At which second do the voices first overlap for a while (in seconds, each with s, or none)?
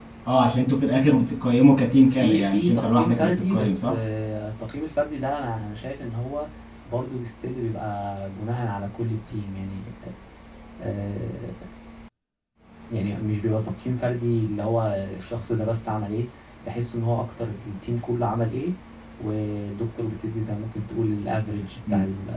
2.2 s